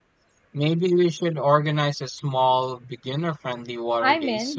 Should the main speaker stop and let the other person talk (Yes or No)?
Yes